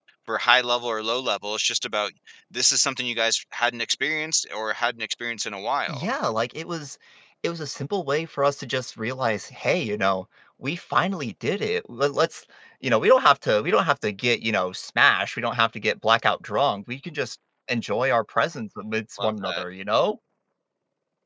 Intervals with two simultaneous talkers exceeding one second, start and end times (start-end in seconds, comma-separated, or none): none